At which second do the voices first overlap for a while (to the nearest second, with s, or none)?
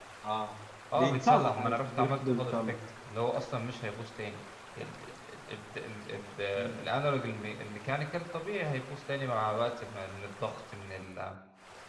1 s